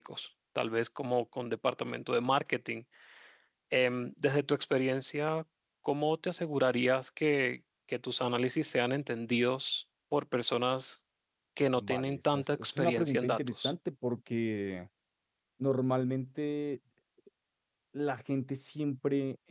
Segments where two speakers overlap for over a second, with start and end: 11.8-13.7

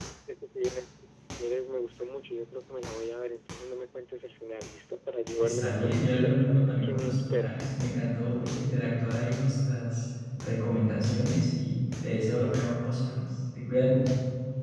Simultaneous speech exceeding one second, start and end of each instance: 5.4-7.6

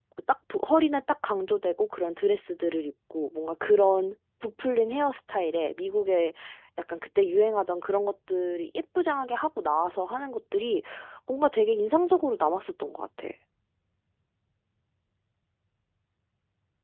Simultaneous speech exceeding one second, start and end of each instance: none

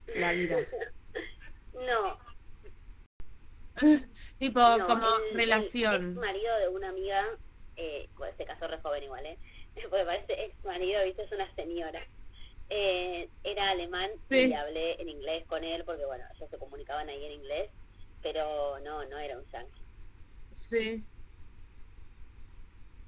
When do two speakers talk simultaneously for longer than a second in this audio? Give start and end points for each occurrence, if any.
4.7-6.2

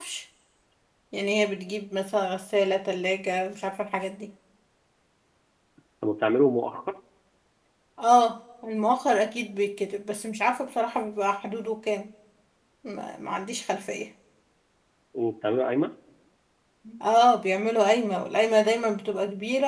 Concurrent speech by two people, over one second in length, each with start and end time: none

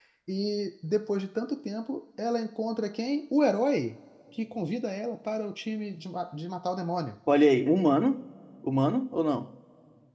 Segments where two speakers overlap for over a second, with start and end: none

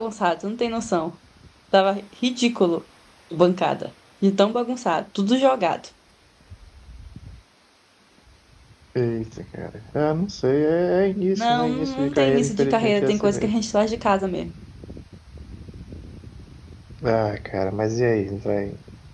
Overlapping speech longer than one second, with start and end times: 11.3-13.5

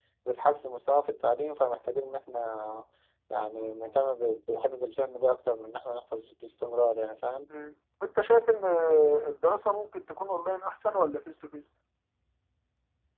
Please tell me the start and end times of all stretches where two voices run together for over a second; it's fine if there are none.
none

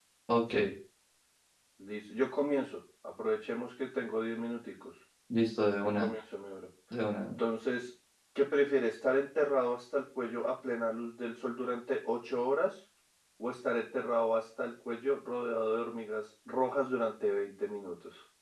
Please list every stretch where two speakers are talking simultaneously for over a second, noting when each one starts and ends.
none

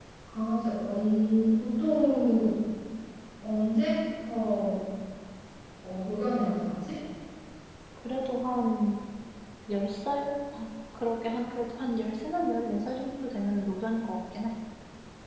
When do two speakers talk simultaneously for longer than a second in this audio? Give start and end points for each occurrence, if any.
none

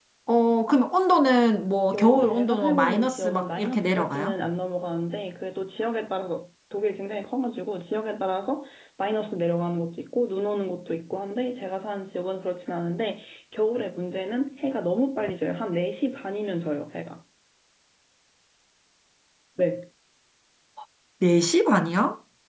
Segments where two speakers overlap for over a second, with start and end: 1.9-4.3

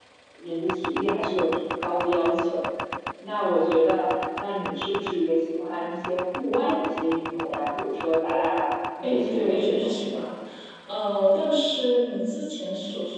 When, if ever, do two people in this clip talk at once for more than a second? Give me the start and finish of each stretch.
9.0-10.2

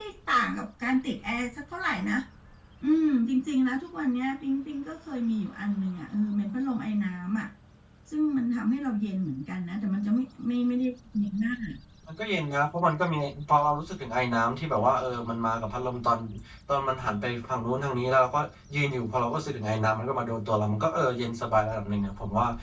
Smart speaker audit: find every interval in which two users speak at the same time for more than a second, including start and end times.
none

